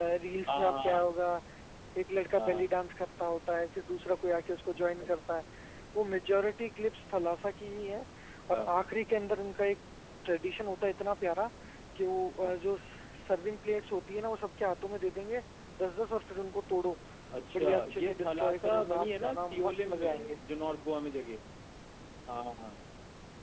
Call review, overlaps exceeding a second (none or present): present